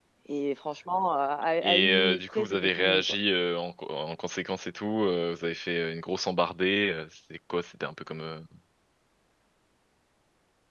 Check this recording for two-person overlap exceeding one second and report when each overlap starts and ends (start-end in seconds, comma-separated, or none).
1.6-3.0